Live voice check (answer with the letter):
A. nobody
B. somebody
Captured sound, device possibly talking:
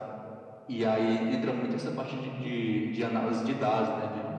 B